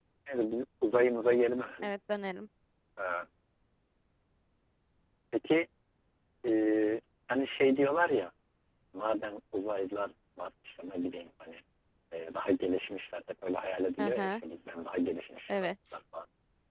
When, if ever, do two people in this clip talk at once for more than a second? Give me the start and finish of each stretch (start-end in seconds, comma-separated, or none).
none